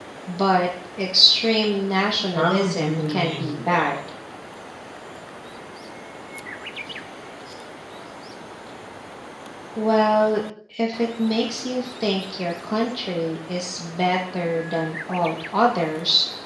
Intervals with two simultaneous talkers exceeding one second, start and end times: 2.4-3.9

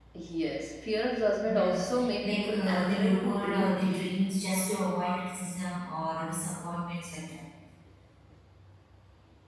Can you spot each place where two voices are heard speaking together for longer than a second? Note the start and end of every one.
1.5-4.2

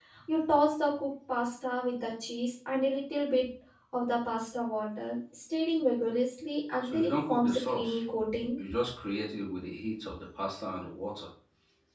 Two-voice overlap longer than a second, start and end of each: 6.8-8.0

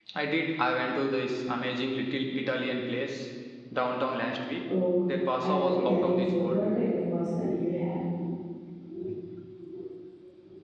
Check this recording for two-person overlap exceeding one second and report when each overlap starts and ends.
5.4-6.6

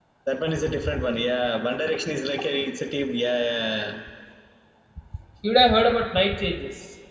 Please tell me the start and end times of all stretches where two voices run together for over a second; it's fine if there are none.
none

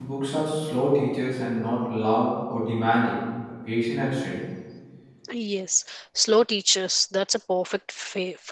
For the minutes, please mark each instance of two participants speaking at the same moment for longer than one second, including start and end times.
none

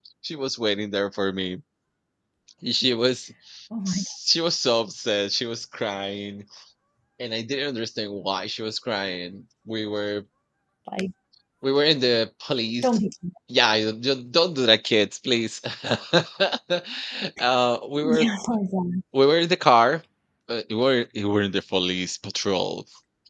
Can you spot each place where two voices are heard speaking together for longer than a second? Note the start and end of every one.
none

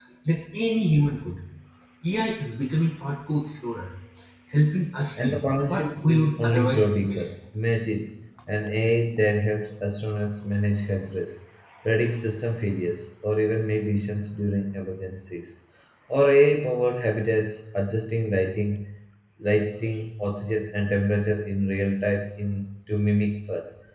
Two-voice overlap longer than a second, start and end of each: 5.2-7.3

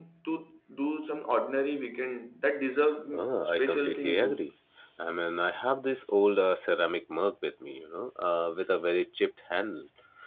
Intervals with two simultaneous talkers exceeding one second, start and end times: 3.1-4.3

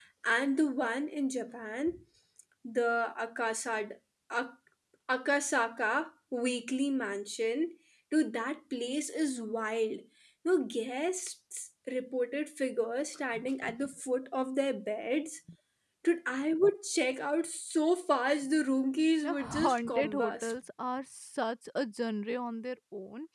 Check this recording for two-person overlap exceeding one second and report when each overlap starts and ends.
19.2-20.5

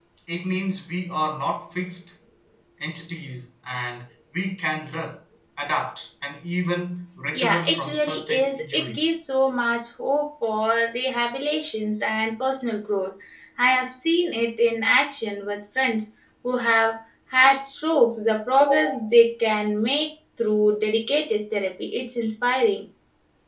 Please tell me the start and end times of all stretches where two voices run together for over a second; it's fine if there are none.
7.3-9.1

